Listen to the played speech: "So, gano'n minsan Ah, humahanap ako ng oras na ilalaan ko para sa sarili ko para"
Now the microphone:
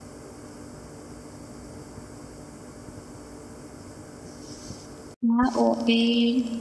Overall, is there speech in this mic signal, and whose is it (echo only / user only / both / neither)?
user only